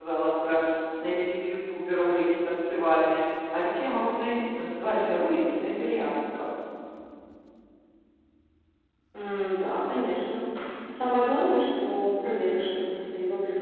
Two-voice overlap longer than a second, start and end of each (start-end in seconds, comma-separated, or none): none